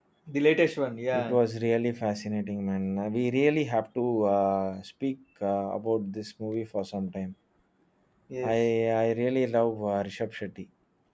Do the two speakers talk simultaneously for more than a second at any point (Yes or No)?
No